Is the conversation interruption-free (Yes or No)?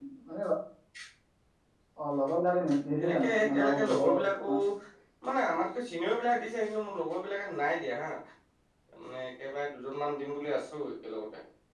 No